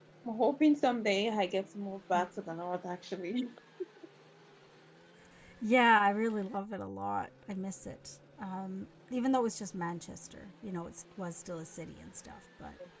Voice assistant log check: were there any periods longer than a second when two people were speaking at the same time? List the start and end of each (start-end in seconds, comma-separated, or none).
none